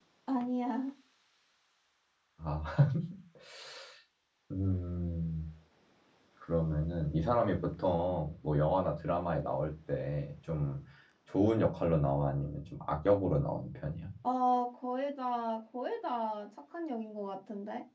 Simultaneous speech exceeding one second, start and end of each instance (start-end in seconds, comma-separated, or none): none